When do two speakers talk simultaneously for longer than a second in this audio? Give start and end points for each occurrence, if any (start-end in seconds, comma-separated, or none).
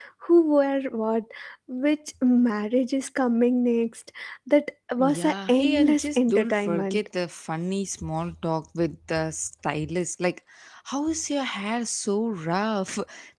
5.0-7.0